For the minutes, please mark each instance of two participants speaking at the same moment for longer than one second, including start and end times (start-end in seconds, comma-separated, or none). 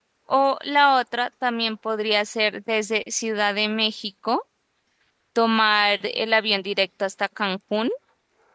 none